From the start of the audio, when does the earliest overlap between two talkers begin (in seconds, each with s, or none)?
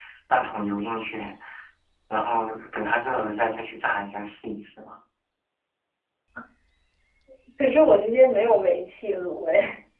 none